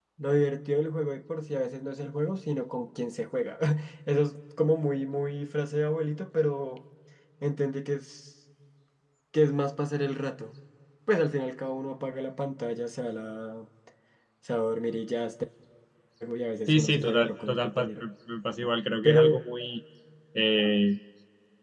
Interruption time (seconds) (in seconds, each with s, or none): 16.7 s